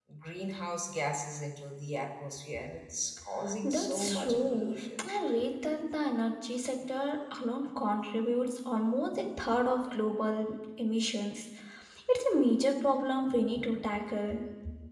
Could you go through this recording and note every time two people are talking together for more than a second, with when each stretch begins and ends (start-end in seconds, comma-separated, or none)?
3.6-5.1